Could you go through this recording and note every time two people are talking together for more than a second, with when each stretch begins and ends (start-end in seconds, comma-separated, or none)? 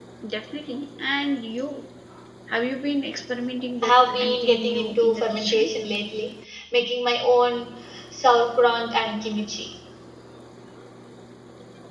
3.8-5.7